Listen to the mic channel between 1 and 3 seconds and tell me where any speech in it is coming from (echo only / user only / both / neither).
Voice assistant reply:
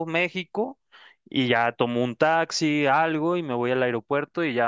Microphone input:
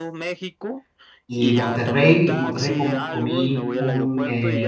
both